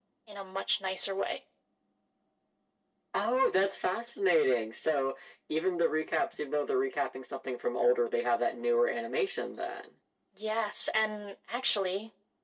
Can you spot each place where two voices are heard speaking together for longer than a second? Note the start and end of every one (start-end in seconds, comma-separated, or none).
none